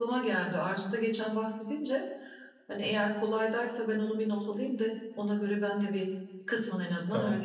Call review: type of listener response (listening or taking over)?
taking over